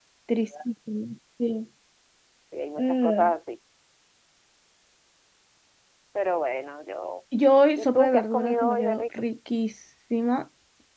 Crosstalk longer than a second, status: present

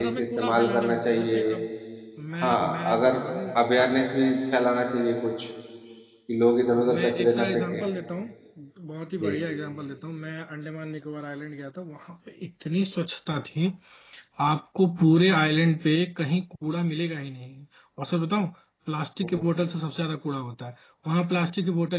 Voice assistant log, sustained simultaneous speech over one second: present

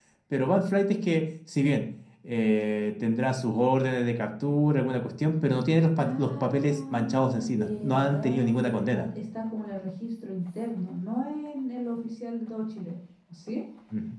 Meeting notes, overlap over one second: present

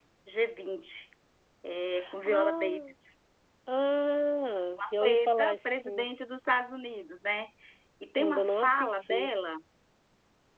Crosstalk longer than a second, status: present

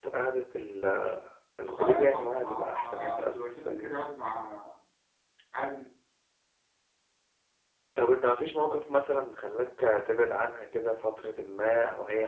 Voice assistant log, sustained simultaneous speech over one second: present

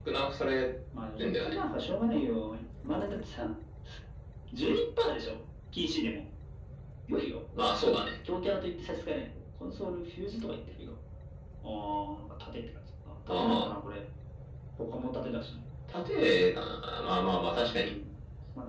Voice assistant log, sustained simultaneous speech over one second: none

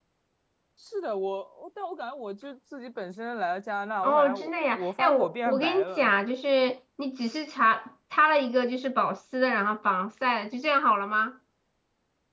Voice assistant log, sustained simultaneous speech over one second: present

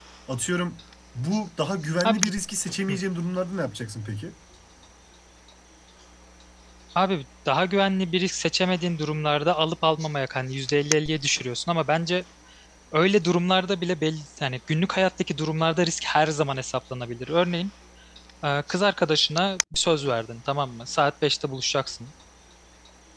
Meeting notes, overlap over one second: none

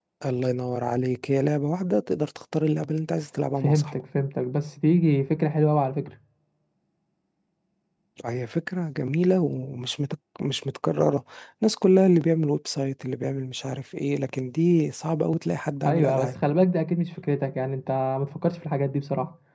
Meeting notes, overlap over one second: none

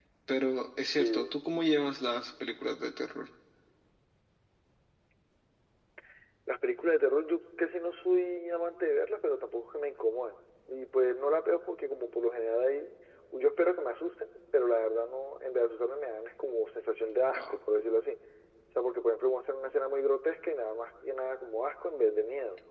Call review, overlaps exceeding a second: none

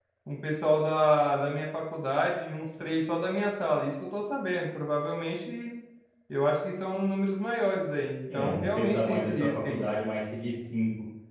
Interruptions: present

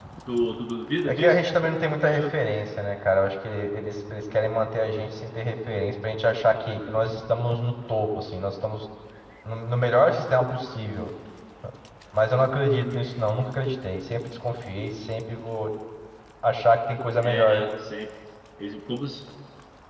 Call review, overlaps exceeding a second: none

